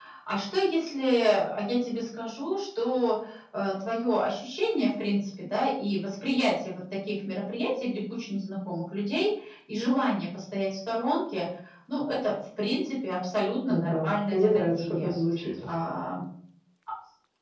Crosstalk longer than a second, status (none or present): present